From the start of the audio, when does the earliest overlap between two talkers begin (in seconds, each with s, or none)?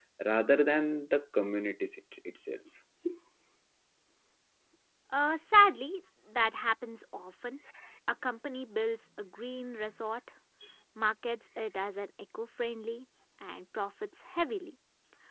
none